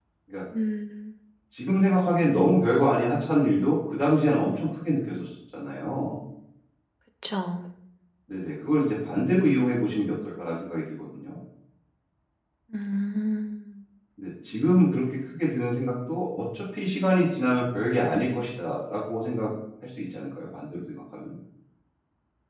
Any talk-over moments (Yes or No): No